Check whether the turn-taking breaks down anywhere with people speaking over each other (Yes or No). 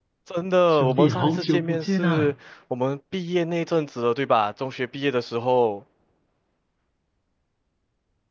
Yes